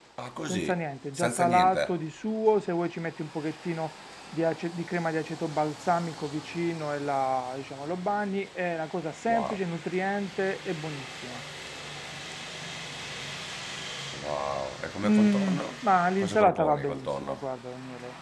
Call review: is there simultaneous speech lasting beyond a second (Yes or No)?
Yes